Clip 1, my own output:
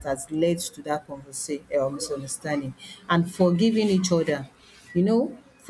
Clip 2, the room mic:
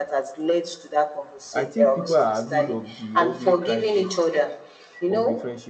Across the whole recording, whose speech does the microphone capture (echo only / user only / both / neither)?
both